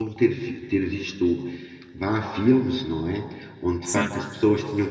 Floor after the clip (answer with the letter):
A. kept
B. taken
A